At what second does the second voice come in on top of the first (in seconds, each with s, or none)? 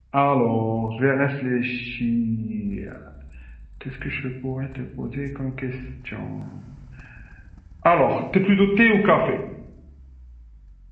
none